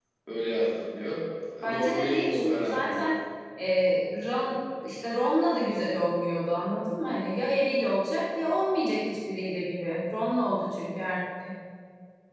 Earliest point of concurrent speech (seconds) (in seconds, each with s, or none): 1.7 s